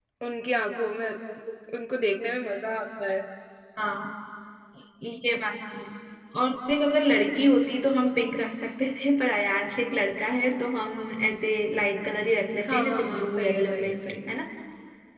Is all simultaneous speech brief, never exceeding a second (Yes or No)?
No